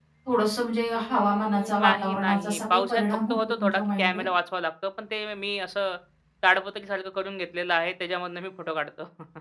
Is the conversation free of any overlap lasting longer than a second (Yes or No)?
No